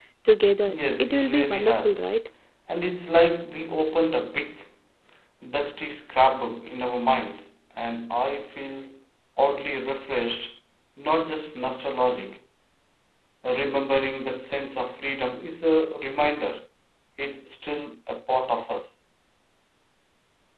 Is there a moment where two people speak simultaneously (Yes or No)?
Yes